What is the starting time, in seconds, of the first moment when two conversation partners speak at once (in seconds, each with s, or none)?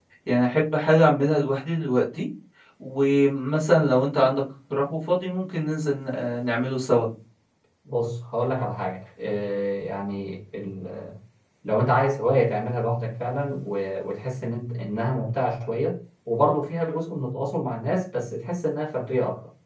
none